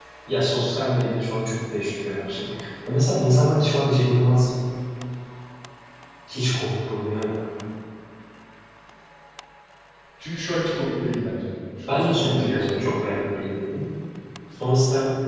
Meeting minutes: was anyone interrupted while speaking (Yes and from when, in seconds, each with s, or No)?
Yes, from 11.9 s